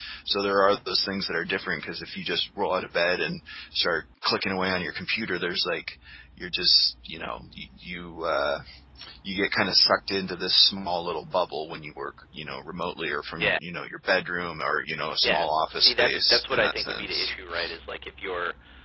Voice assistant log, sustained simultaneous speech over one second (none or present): present